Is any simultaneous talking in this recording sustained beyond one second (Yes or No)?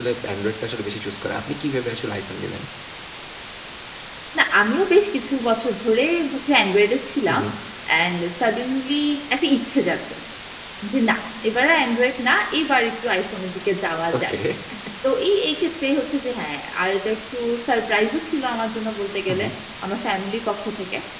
No